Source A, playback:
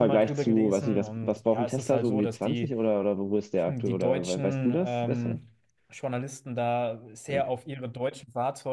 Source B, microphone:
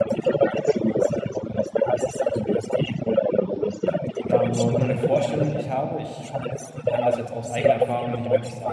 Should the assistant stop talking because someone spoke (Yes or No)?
Yes